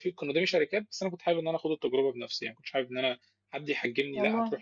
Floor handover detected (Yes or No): No